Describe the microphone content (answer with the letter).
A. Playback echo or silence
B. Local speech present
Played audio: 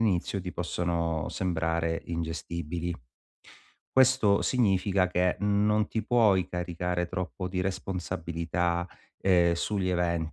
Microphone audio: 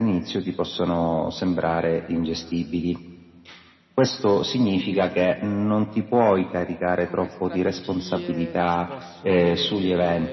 B